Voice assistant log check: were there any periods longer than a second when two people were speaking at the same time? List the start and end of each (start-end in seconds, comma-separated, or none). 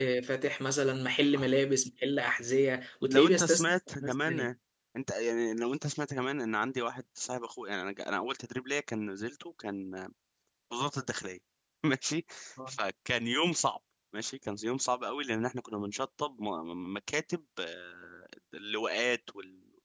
3.1-4.5